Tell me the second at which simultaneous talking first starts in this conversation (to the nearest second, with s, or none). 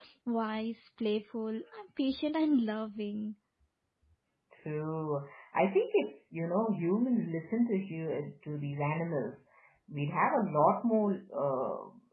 none